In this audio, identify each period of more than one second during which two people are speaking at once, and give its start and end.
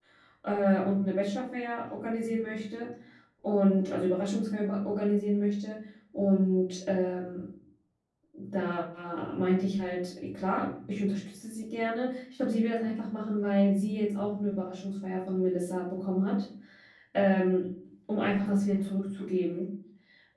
none

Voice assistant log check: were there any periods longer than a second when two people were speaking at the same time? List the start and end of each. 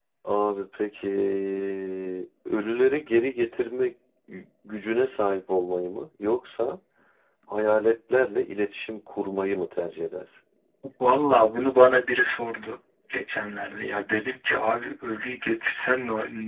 none

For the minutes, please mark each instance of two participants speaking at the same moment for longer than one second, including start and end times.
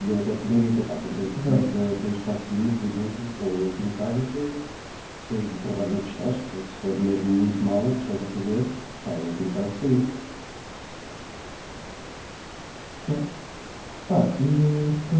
none

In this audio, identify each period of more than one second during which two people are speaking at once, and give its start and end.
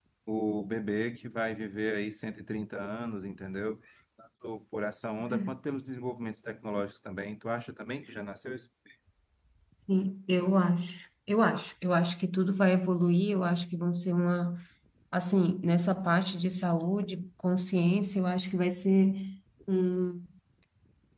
none

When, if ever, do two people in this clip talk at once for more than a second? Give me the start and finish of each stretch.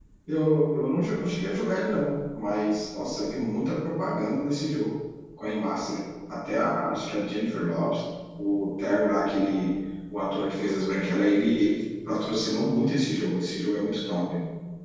none

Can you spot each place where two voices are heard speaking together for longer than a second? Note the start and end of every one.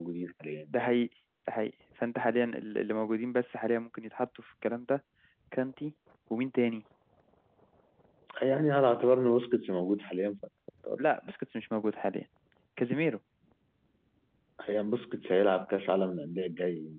none

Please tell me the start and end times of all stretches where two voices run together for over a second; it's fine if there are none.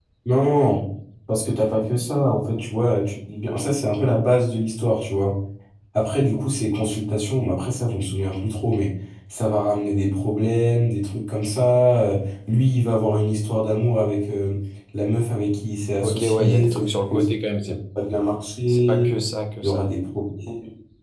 16.0-17.3

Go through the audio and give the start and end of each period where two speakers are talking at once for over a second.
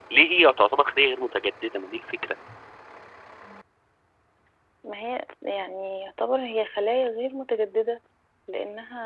none

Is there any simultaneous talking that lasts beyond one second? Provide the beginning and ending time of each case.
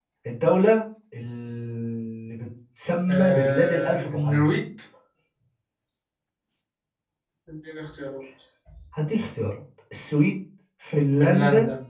3.1-4.5

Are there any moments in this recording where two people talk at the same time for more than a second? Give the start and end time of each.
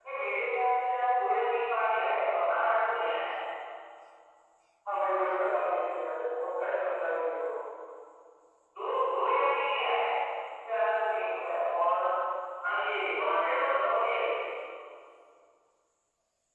none

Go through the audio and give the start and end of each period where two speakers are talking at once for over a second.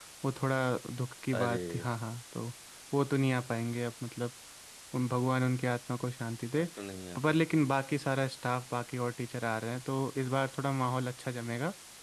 none

